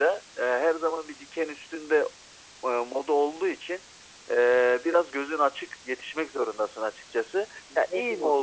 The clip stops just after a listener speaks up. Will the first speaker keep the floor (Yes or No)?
Yes